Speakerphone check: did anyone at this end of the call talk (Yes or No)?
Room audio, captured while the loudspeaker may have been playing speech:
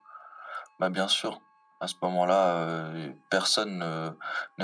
No